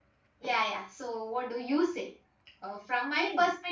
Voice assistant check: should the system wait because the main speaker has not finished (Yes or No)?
Yes